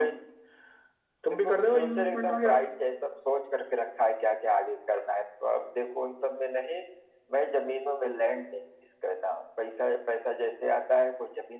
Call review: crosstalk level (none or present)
present